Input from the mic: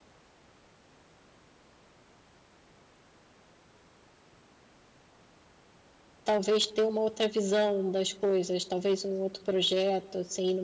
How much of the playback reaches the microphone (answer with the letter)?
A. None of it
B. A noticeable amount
A